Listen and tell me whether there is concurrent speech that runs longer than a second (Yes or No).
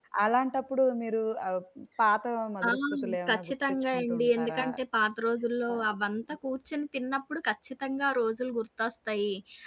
Yes